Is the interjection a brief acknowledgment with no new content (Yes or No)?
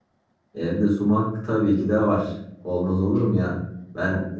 Yes